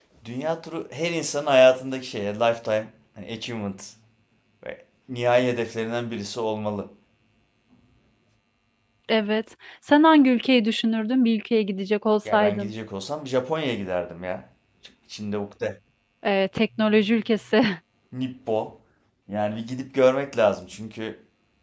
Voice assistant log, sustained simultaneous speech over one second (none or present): none